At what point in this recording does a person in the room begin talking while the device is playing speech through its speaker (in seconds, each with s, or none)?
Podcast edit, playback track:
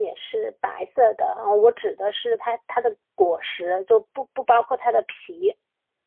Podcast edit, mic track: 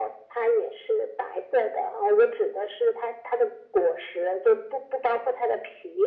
none